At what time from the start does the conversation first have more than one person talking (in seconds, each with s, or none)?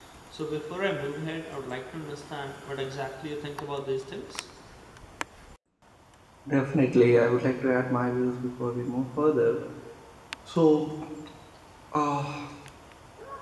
none